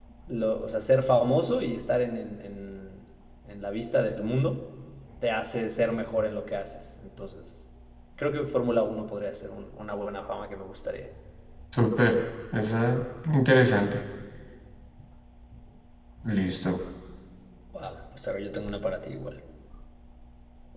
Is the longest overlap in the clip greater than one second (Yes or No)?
No